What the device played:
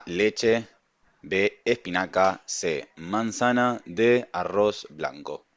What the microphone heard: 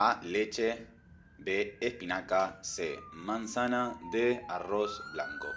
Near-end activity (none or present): none